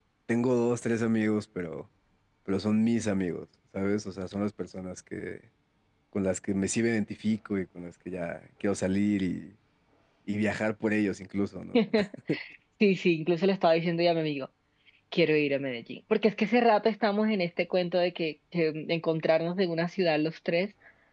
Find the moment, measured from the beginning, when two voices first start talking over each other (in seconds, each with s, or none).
none